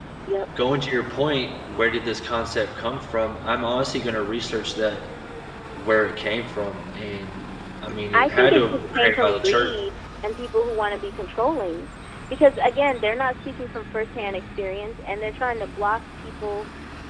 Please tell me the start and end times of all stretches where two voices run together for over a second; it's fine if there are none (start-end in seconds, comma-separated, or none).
8.1-9.7